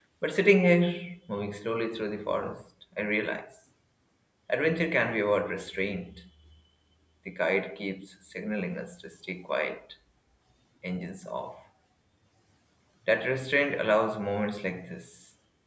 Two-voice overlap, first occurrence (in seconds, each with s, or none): none